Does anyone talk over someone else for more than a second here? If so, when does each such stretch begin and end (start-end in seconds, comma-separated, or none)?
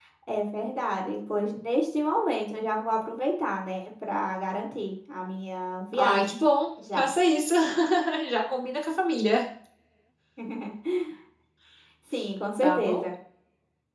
none